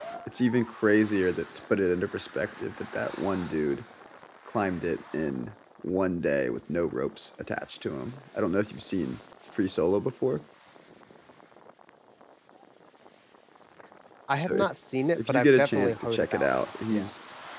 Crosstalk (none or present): present